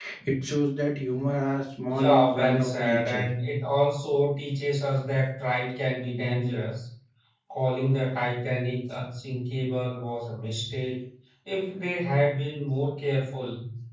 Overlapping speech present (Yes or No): Yes